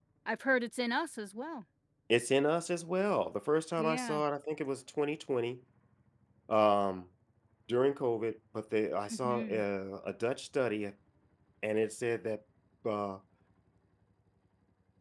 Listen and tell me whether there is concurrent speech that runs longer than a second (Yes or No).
No